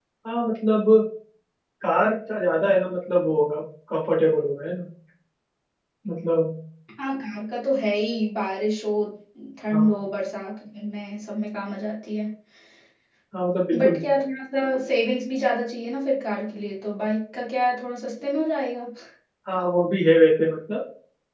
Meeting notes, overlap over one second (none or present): none